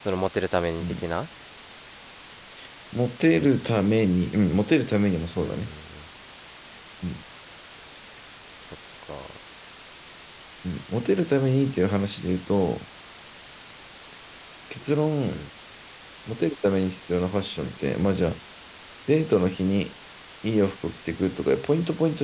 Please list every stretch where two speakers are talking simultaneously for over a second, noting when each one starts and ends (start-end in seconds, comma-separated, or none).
none